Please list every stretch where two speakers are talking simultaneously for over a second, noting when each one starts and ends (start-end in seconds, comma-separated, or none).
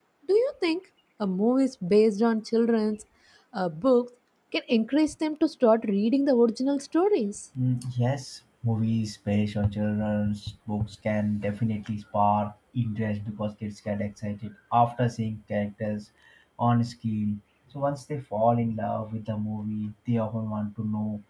none